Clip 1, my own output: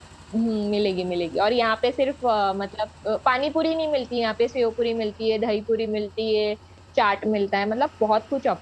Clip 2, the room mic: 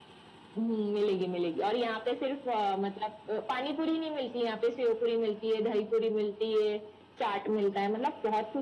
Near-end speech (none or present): none